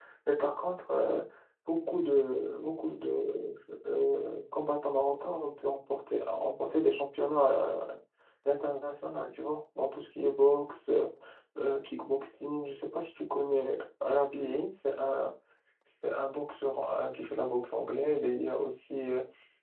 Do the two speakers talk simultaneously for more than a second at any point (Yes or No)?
No